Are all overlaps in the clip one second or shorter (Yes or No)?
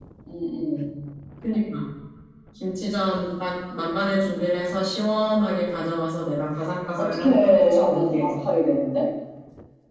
No